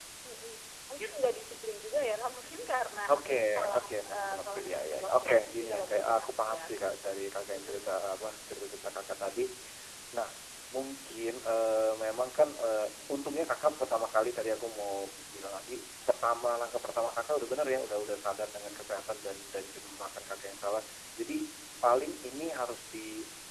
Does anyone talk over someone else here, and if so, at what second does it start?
3.1 s

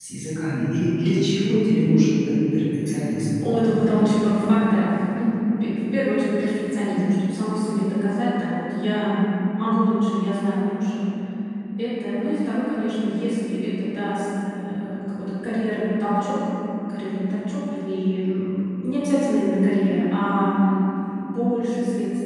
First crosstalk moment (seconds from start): none

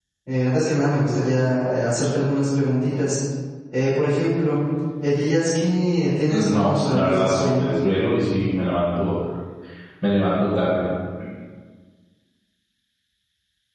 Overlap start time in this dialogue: 6.3 s

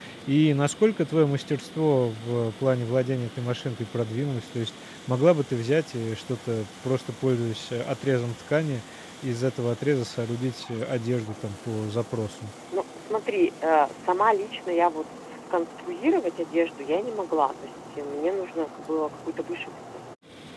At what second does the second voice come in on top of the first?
none

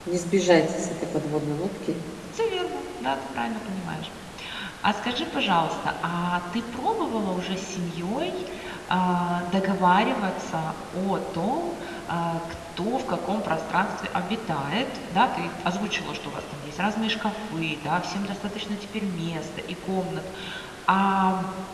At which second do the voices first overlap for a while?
none

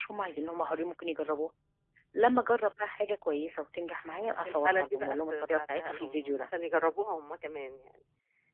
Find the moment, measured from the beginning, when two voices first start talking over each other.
4.5 s

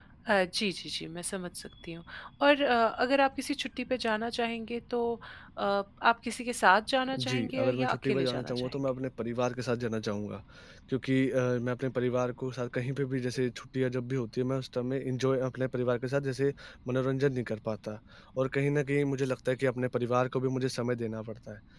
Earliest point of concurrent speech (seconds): 7.1 s

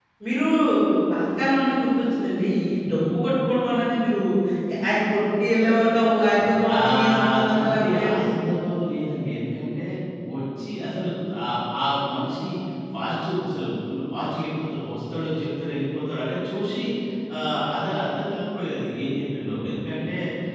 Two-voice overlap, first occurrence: 6.7 s

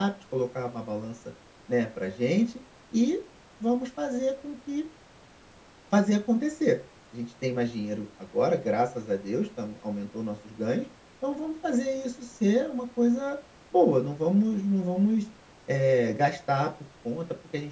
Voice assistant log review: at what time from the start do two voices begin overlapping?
none

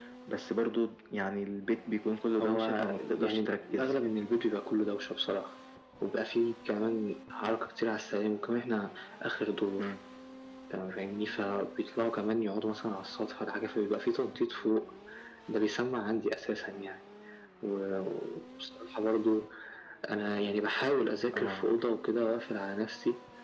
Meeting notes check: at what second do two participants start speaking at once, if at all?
2.4 s

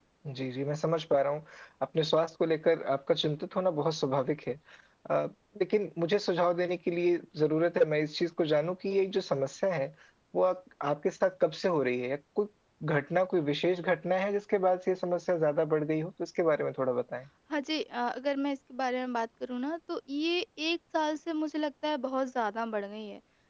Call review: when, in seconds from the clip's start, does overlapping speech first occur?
none

